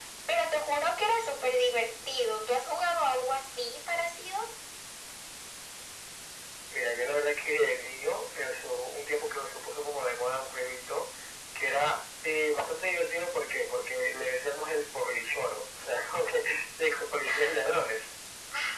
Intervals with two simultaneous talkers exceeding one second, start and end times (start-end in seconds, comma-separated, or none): none